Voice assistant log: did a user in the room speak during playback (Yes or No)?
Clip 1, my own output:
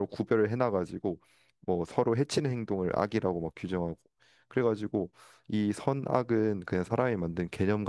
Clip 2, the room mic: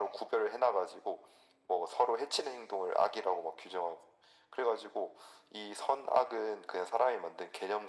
No